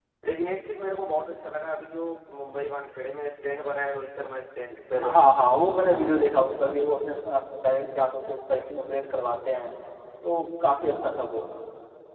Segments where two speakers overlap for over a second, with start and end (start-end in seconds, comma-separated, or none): none